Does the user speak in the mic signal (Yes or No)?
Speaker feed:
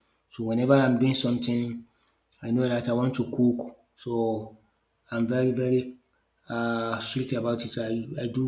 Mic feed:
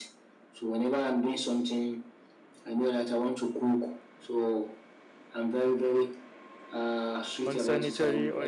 Yes